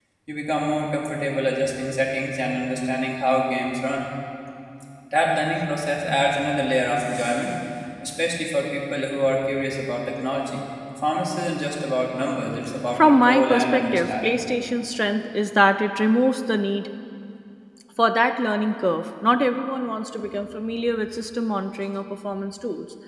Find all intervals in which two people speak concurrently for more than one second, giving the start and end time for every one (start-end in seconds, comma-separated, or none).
13.0-14.3